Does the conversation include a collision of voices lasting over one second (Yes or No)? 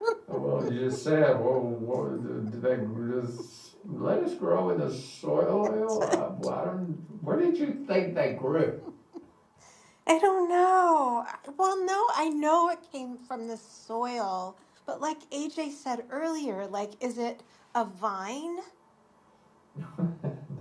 No